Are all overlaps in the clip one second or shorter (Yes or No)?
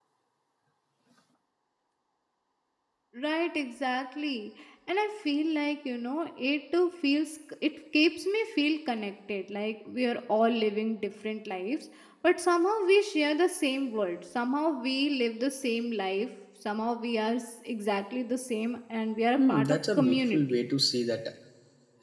No